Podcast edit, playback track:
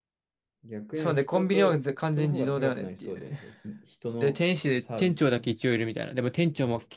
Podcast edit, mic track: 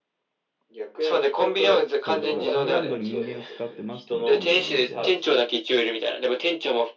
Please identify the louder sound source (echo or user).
echo